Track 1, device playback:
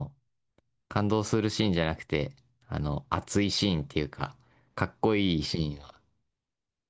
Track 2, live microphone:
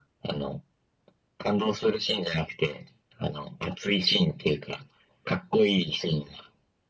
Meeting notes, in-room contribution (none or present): none